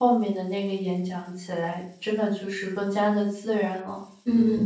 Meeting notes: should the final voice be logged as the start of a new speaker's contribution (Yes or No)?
Yes